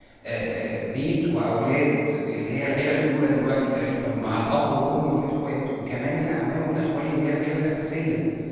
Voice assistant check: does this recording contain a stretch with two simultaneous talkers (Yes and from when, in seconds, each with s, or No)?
No